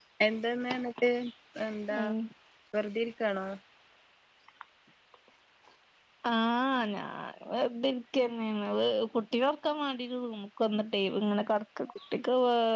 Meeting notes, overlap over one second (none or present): none